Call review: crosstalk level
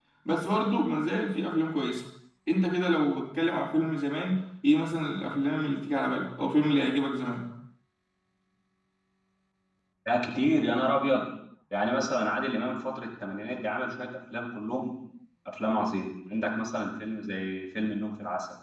none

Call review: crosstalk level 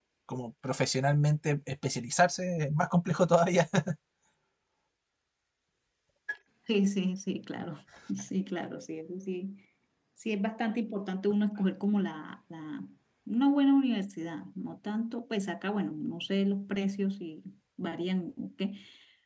none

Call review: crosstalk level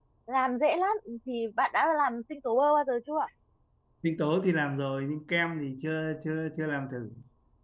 none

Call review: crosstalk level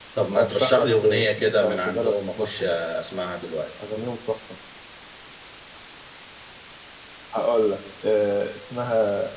present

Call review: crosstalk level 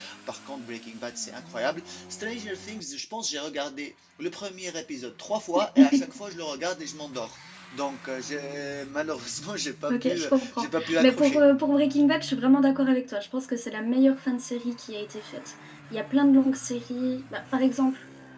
present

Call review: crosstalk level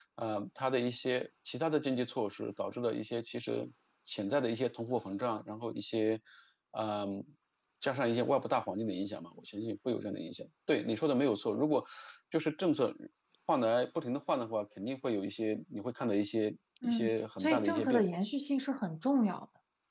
present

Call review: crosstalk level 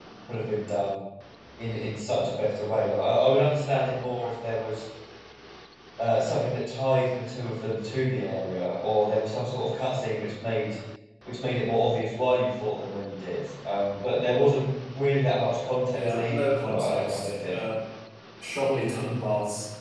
present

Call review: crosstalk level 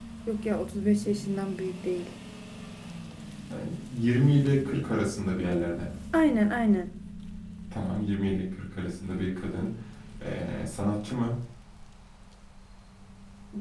none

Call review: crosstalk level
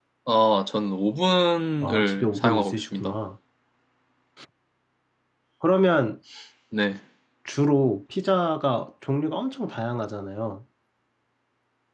present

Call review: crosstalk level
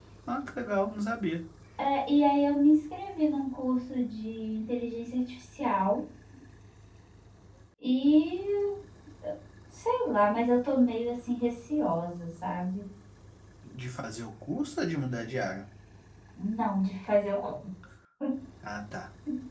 none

